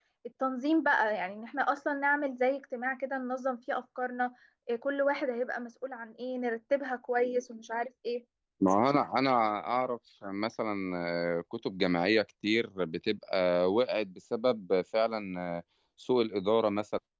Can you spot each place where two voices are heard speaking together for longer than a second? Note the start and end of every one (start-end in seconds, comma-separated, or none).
none